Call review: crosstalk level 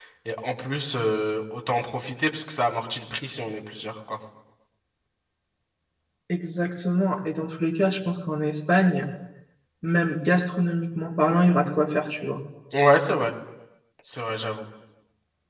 none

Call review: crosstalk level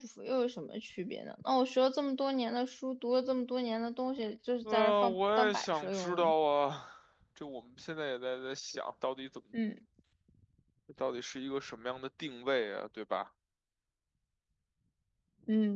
present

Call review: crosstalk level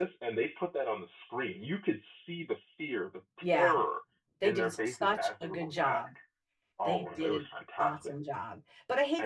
present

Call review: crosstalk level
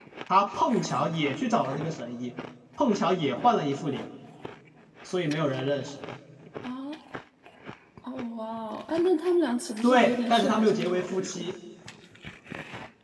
present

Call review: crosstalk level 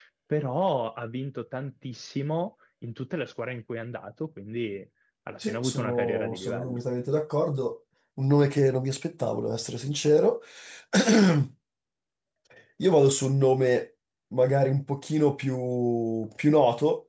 present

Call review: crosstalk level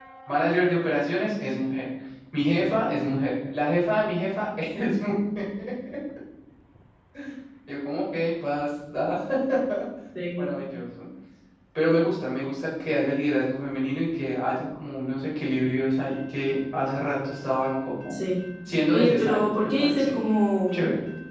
present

